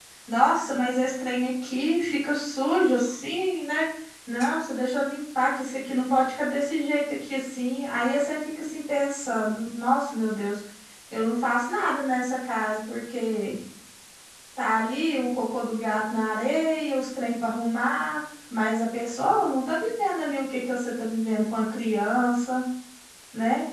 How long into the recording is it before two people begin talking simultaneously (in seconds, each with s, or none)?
none